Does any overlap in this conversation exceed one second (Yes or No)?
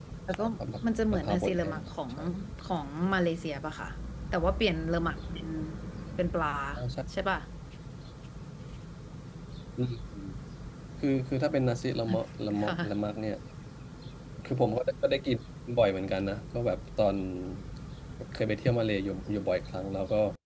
Yes